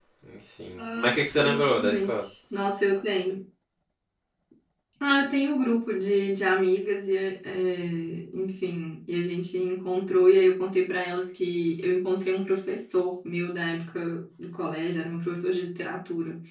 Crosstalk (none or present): present